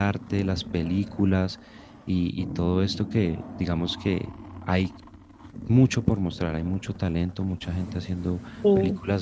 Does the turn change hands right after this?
No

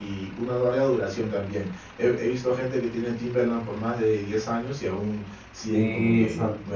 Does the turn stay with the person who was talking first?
No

